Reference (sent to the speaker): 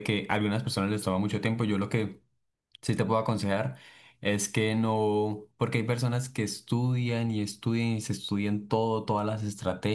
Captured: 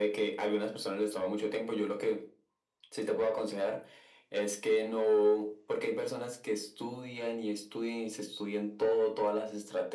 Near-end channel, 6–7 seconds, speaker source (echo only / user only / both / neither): echo only